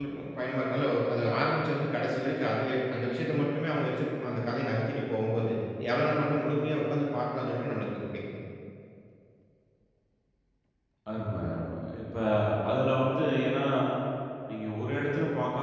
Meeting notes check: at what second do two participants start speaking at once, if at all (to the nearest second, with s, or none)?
none